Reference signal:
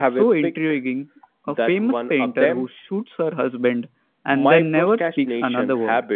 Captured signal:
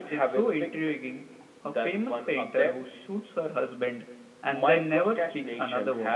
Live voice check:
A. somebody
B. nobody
B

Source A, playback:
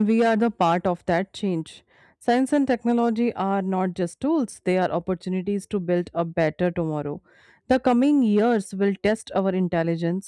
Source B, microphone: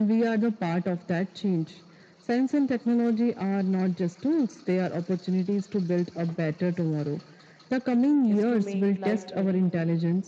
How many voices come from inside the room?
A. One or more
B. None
A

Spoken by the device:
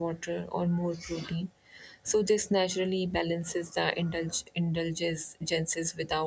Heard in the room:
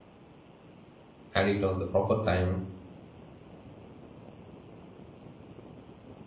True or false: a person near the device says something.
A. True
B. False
A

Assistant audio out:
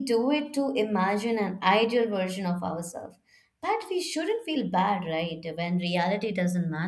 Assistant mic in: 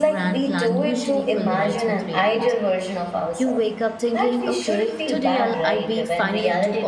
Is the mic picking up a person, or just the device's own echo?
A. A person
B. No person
A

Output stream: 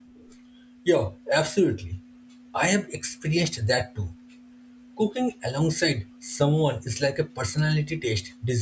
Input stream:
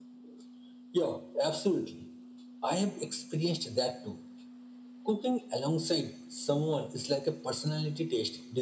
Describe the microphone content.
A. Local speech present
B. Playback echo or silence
B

